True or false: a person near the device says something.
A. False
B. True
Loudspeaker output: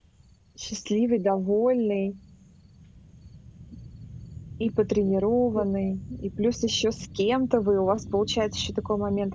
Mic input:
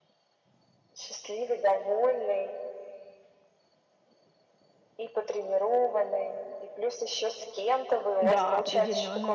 B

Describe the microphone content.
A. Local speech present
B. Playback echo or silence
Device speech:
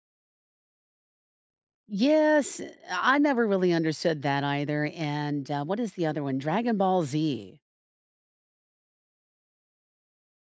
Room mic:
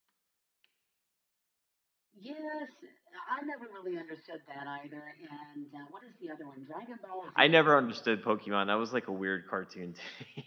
A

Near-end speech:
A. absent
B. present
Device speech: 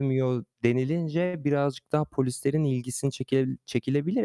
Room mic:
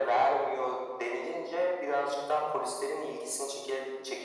A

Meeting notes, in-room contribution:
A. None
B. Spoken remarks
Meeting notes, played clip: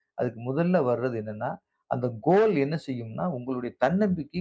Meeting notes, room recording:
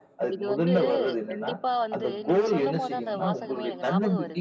B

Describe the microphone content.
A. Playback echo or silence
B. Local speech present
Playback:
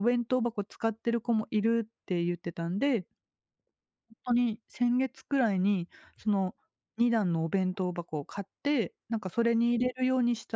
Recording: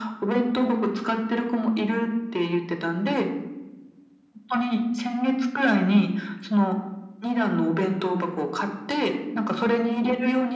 A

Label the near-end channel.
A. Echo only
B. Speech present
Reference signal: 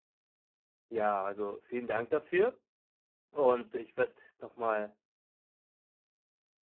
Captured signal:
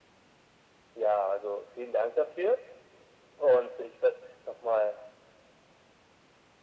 A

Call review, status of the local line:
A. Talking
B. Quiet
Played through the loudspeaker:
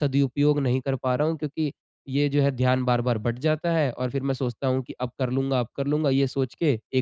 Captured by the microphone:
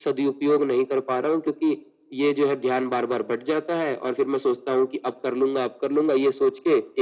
B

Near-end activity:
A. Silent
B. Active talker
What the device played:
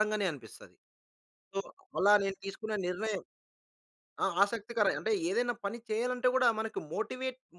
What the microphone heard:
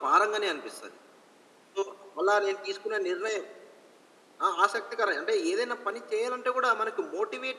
A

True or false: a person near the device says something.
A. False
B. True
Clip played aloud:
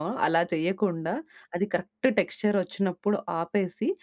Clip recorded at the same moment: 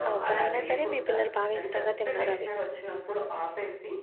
B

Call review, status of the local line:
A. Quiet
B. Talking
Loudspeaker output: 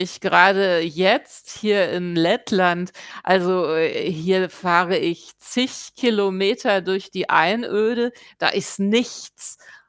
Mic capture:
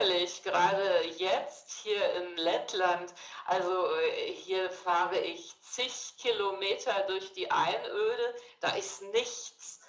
A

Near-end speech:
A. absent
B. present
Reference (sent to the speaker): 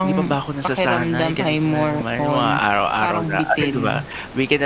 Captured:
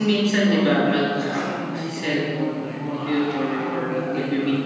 B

